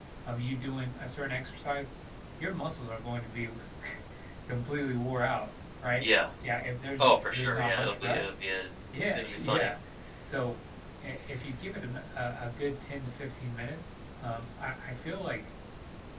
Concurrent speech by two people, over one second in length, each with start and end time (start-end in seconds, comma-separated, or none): 7.0-8.3